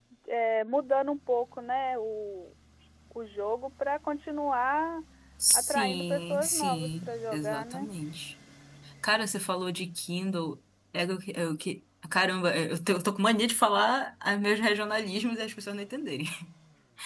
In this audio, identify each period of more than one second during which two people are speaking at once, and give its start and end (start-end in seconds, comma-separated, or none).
5.5-7.8